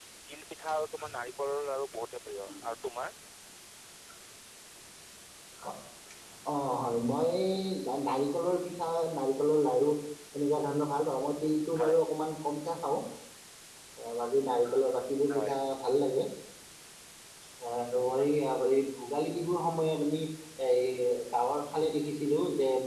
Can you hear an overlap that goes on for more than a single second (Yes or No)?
No